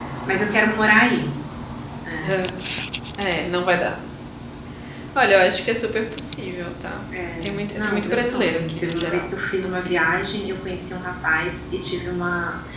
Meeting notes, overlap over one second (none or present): present